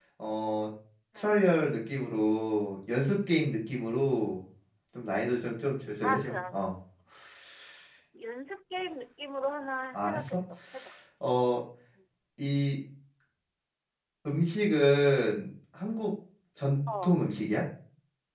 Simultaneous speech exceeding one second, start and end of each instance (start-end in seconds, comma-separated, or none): none